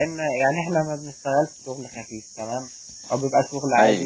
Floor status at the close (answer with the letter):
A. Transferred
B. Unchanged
B